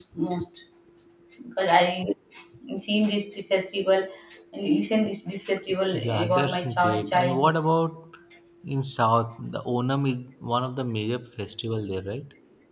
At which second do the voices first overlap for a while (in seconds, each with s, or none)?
5.9 s